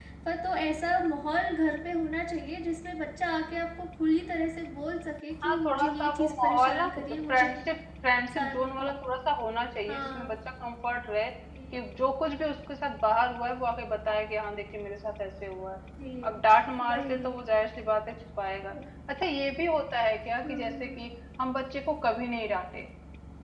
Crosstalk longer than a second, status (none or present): present